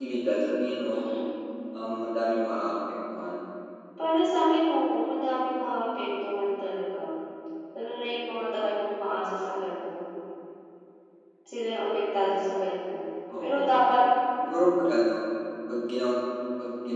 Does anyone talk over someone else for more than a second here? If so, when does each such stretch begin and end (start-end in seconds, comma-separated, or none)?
none